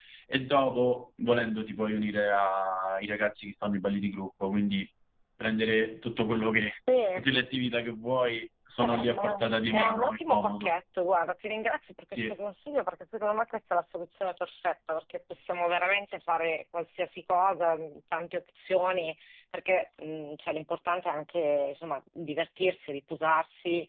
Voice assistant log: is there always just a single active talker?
No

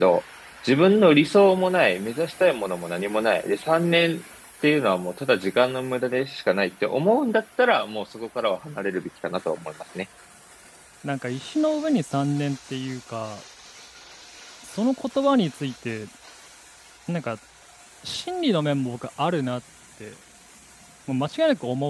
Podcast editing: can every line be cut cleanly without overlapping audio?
Yes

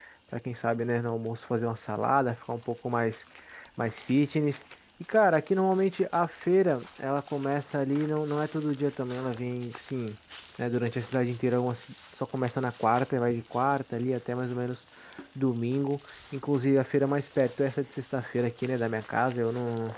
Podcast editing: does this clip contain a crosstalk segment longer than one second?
No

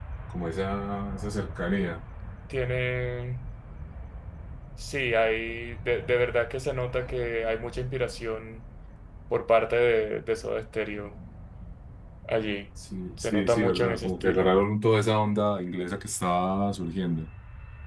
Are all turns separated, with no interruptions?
No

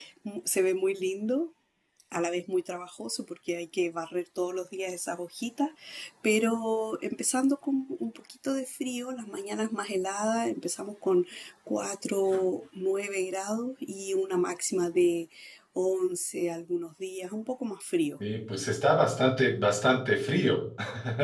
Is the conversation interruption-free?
Yes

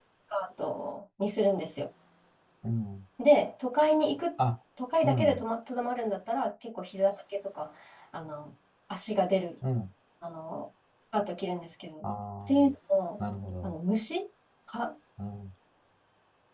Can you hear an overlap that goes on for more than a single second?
No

